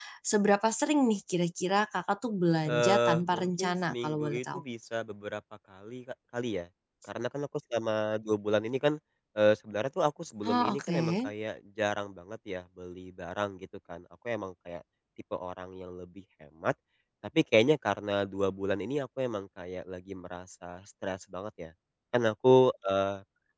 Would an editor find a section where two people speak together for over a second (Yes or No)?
Yes